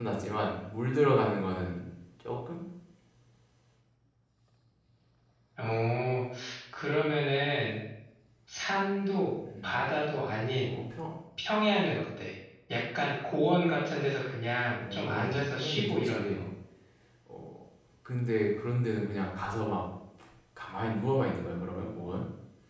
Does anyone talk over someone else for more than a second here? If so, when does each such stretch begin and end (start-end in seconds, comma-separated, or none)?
14.8-16.4